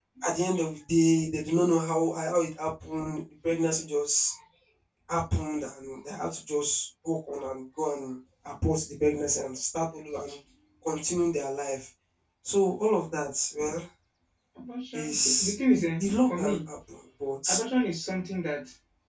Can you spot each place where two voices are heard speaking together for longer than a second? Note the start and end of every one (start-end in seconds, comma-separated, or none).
14.9-16.6